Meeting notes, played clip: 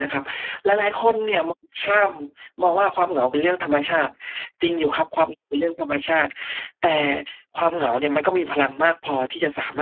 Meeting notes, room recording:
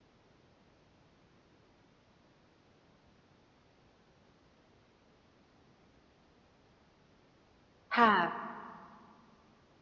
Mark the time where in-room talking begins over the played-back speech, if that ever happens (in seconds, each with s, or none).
7.9 s